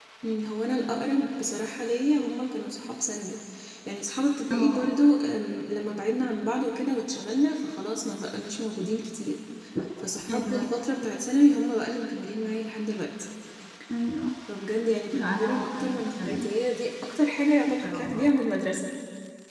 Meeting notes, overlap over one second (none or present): present